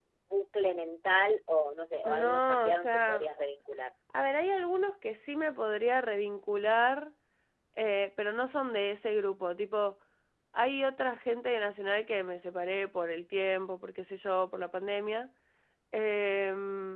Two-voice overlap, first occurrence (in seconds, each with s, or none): 2.0 s